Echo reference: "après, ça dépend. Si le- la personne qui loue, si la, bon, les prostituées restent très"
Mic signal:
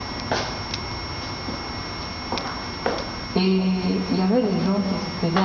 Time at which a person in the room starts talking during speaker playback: 3.3 s

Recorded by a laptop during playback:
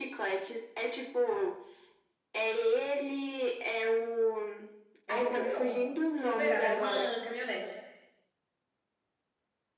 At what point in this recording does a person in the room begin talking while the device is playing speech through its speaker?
5.0 s

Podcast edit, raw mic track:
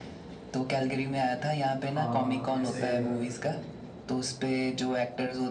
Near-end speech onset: 1.9 s

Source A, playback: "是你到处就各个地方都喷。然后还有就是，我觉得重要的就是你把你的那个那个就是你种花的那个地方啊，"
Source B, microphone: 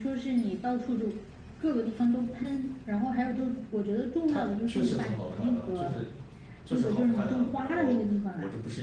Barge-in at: 4.3 s

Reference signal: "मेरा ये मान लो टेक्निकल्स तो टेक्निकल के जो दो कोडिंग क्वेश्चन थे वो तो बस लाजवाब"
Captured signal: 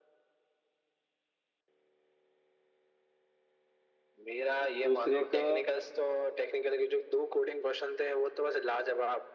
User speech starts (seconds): 4.8 s

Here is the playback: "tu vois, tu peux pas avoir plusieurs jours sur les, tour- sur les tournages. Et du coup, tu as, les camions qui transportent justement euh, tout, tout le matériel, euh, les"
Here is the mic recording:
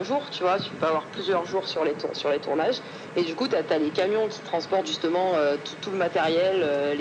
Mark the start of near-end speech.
none

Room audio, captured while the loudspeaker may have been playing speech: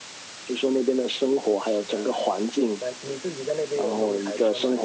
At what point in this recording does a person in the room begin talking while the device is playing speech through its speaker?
1.6 s

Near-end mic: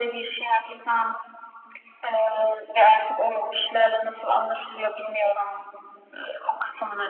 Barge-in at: none

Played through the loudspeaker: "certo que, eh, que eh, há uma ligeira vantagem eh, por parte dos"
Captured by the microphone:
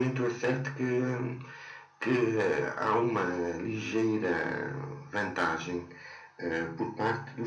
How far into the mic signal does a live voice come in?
none

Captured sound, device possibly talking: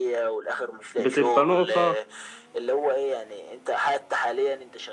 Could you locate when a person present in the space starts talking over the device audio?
1.0 s

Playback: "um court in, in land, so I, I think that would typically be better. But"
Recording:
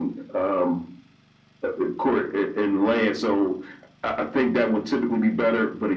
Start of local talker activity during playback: none

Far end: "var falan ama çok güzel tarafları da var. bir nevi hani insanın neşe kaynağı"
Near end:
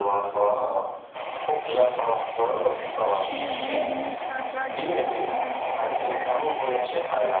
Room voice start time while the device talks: 2.6 s

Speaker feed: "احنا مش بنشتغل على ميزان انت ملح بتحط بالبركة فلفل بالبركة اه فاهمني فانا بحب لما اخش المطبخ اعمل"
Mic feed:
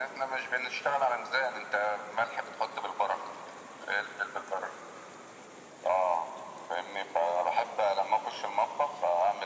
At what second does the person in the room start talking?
none

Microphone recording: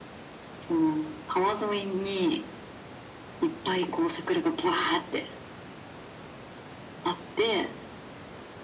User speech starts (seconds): none

